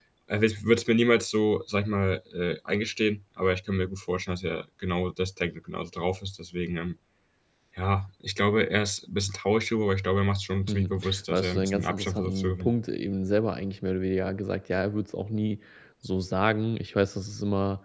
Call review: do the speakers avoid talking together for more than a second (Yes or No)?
No